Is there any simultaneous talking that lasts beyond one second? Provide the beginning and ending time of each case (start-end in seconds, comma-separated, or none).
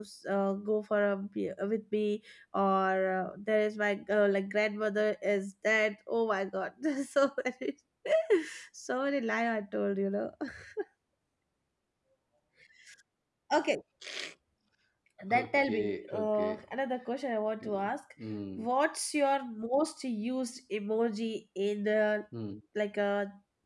15.3-16.6